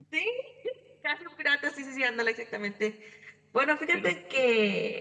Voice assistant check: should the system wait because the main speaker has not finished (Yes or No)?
Yes